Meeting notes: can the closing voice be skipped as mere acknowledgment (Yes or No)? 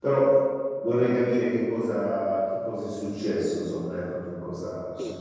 No